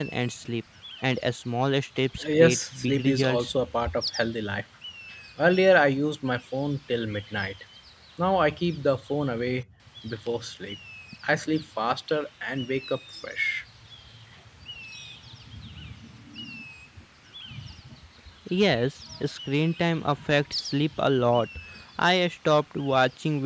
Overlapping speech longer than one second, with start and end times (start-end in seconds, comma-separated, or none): 2.2-3.5